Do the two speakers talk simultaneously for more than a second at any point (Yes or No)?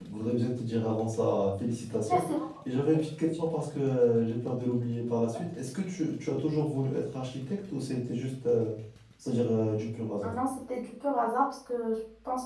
No